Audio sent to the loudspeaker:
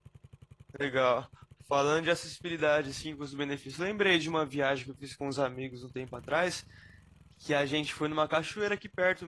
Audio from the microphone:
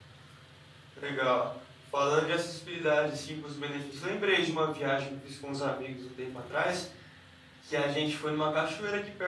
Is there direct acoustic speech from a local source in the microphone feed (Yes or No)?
No